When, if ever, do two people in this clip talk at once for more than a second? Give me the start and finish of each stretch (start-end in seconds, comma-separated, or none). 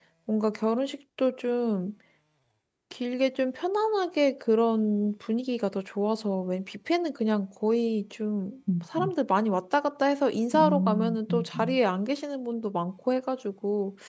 10.5-11.8